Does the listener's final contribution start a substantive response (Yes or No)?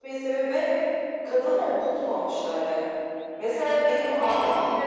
No